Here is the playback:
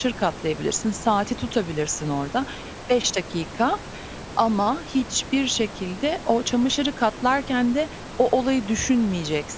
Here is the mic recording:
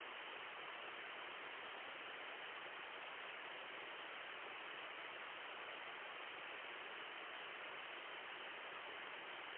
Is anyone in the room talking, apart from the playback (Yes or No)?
No